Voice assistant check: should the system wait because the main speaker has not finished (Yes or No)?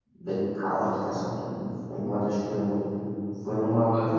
Yes